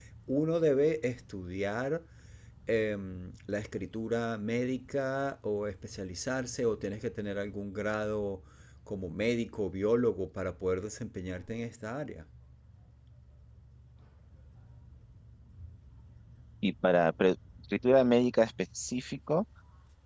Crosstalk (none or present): none